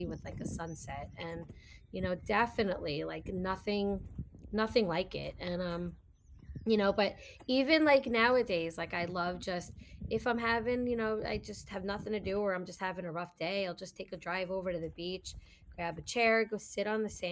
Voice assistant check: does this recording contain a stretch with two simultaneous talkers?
No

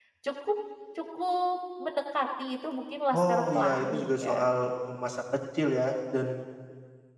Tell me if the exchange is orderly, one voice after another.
No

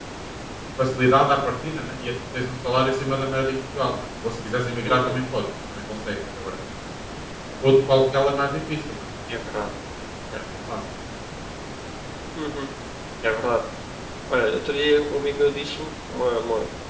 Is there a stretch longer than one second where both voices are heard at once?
No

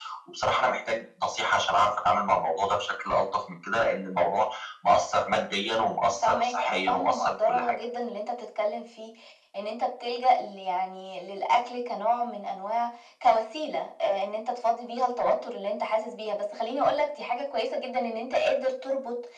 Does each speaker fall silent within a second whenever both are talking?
No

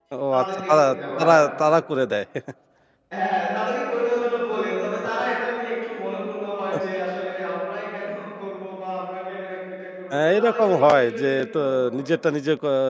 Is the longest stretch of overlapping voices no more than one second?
No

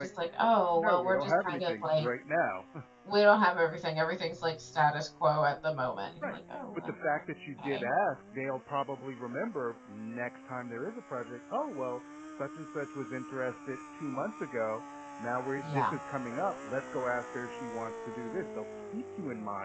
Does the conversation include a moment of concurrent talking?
Yes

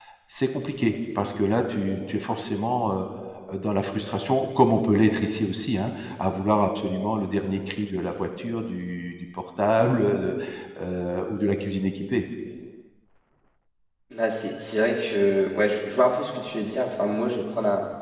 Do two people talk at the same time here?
No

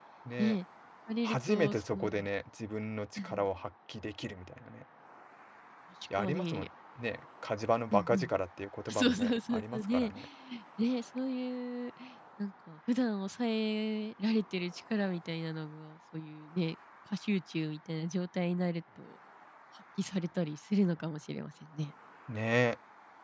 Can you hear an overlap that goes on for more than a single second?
Yes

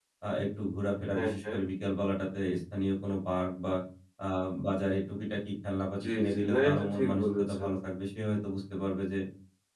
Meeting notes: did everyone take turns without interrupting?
No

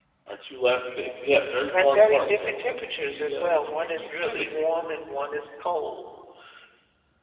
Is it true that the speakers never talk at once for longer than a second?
No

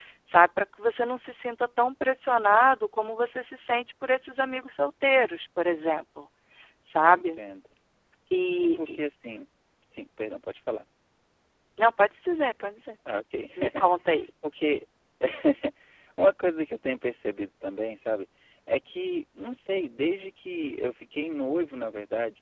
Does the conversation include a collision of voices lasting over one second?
No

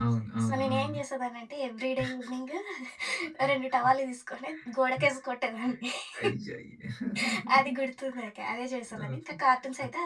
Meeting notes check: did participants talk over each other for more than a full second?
No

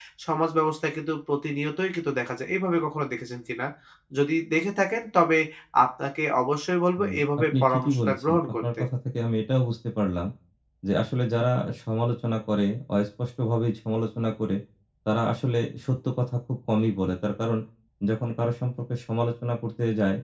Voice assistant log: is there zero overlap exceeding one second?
No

